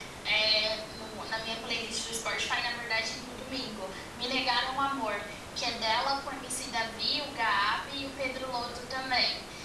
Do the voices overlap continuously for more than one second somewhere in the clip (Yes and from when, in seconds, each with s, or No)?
No